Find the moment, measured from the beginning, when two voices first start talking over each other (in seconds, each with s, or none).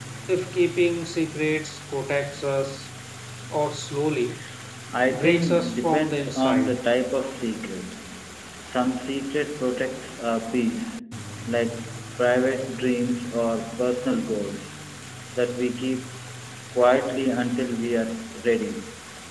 5.1 s